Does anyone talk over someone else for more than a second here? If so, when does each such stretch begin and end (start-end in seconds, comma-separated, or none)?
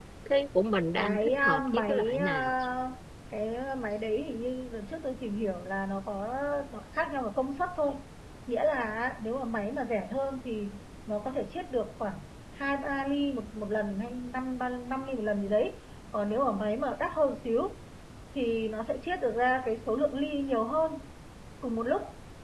1.0-2.5